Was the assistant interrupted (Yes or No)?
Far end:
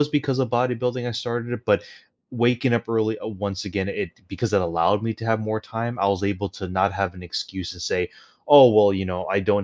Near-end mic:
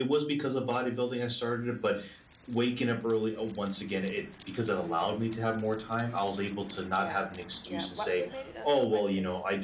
Yes